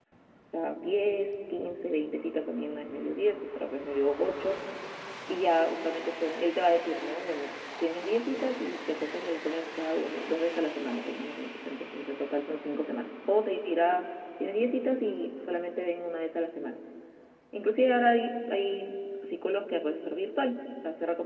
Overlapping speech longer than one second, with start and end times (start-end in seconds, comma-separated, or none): none